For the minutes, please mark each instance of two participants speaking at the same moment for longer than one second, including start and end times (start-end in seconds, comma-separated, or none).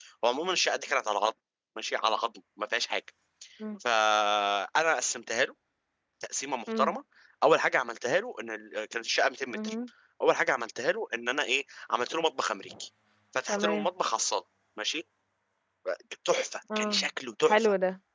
none